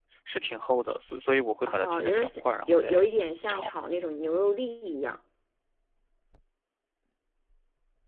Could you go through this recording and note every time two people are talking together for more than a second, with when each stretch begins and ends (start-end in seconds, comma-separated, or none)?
1.7-3.1